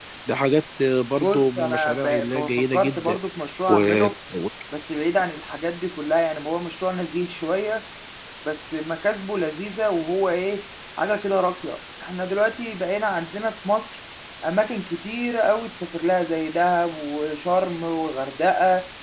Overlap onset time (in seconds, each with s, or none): 1.1 s